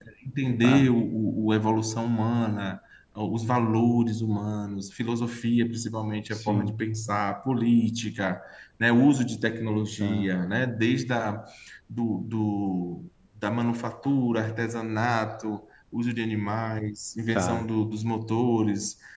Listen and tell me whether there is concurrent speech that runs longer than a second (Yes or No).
No